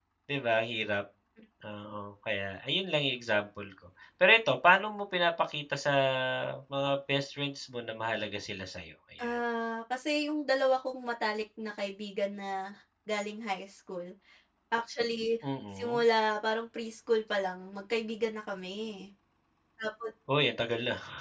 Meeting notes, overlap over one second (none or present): none